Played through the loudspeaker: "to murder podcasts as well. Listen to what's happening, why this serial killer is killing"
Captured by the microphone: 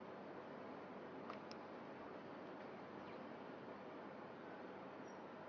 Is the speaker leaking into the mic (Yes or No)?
No